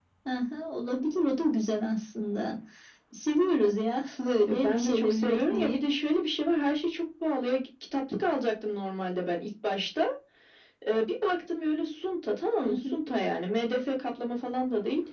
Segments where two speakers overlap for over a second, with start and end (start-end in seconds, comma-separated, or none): 4.5-5.8